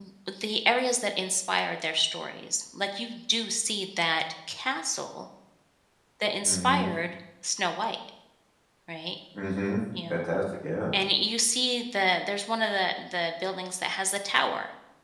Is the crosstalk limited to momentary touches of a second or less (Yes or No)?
Yes